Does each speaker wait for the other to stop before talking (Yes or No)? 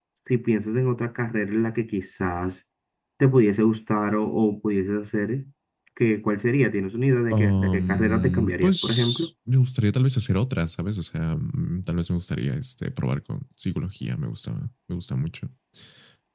No